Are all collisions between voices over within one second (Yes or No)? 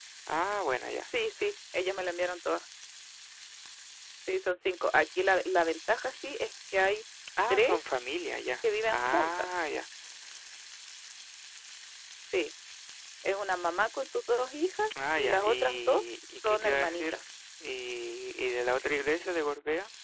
No